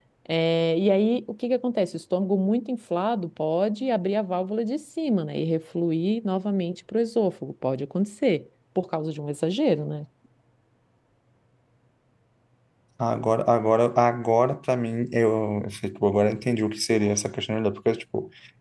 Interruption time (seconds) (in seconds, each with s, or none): none